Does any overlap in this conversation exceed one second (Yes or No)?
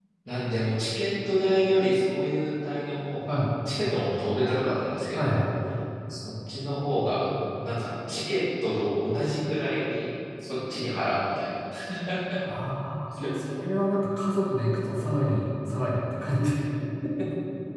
No